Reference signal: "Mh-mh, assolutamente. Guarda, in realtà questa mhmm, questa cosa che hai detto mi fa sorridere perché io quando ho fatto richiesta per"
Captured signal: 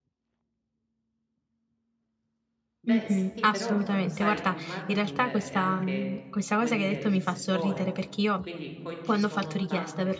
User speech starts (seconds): 3 s

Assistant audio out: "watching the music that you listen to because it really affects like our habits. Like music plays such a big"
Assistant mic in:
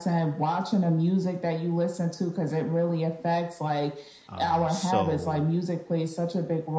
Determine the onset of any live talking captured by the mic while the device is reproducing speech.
4 s

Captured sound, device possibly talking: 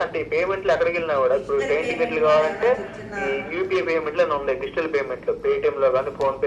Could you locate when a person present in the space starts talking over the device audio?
1 s

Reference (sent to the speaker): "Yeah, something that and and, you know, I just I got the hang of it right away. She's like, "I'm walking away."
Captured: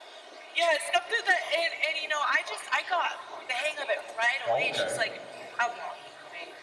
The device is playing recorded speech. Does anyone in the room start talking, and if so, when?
4 s

